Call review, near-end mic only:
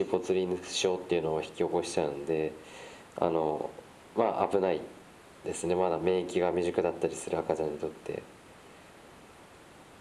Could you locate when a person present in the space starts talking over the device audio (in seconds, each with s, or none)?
none